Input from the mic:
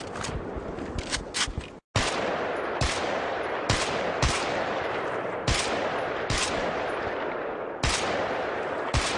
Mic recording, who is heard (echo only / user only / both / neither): neither